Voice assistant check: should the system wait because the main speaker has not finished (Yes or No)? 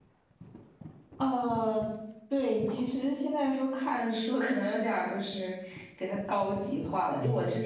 Yes